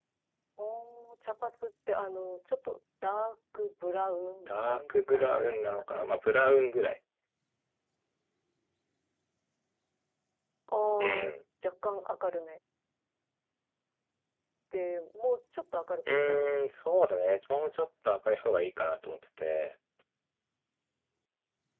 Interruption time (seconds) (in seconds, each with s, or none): 4.5 s